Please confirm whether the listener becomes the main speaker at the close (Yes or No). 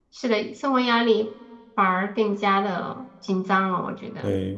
Yes